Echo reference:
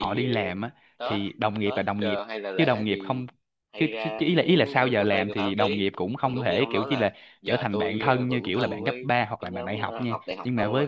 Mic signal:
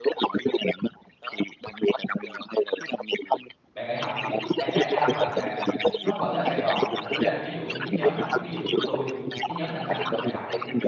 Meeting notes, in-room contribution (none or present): present